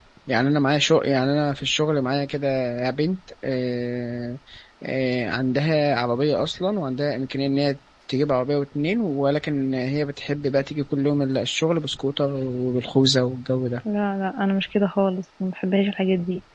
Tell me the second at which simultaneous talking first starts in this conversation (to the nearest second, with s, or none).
none